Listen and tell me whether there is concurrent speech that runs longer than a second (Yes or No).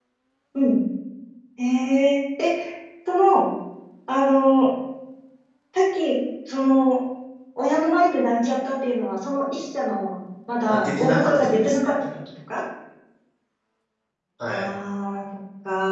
Yes